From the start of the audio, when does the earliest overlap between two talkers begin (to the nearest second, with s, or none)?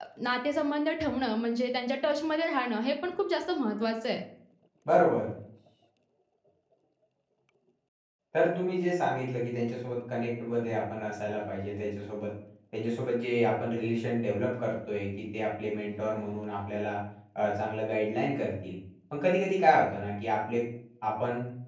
none